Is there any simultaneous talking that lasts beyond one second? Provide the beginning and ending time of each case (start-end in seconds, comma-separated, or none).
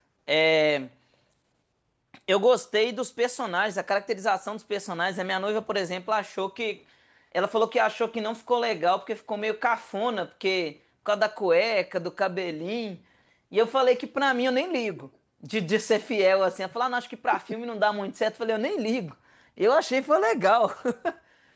none